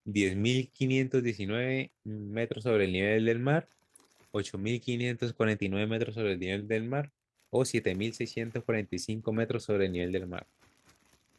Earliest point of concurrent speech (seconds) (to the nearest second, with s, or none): none